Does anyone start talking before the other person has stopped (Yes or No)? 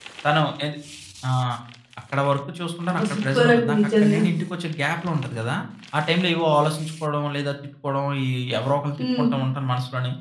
Yes